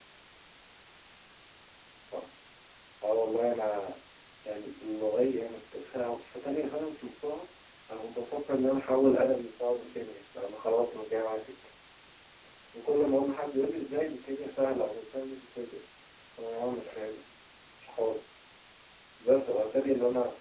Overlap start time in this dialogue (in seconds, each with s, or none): none